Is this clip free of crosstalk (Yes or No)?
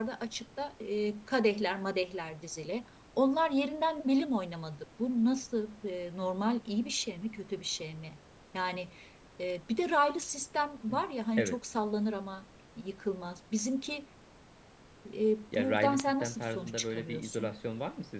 No